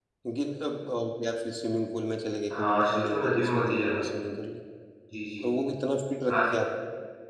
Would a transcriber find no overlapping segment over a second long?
No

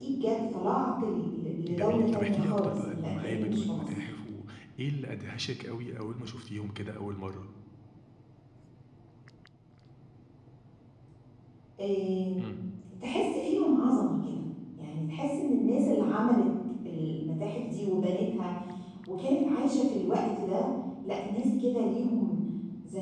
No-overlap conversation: No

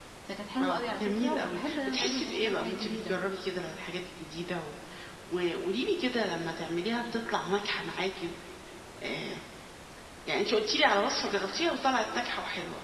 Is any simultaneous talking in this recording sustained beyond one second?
Yes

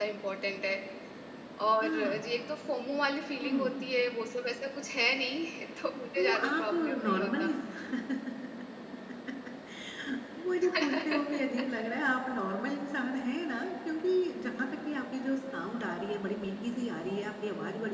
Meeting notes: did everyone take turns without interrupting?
No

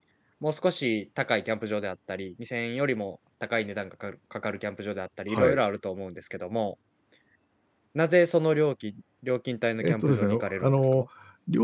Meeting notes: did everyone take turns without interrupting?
No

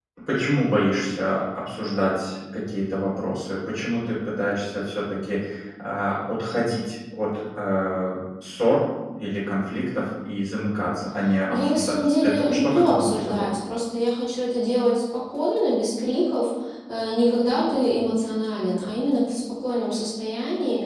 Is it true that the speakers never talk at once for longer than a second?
No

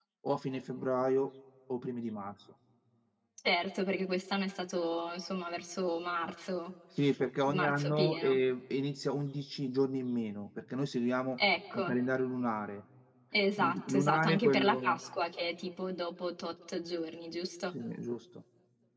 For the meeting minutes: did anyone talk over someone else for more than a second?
Yes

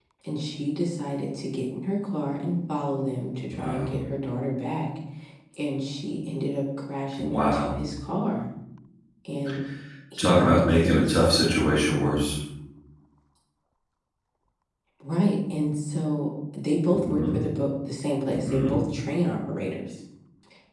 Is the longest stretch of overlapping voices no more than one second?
No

